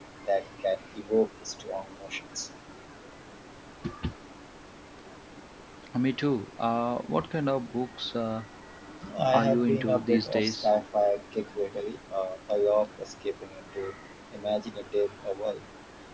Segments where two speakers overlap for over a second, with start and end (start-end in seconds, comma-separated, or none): 9.3-10.7